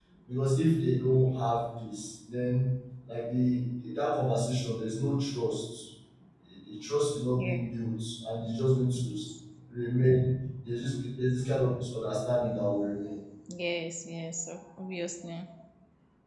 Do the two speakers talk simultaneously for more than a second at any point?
No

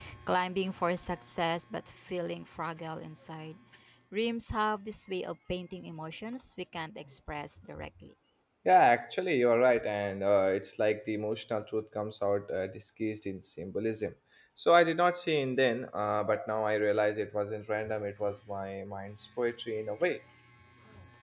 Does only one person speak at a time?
Yes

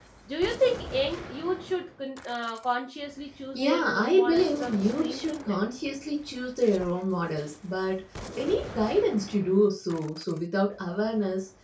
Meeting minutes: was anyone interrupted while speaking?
Yes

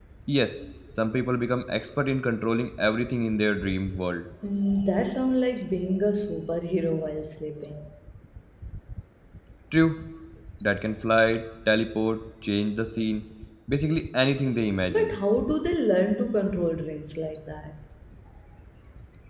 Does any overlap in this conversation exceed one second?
No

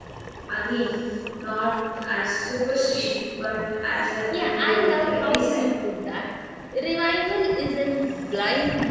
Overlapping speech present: Yes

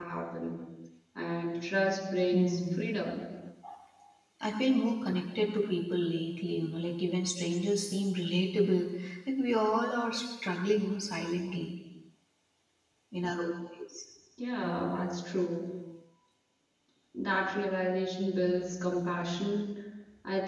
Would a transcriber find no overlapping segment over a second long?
Yes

